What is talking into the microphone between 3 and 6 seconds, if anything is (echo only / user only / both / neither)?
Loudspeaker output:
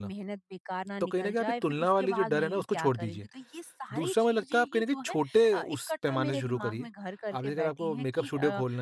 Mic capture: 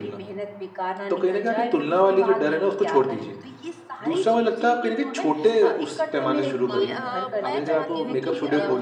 echo only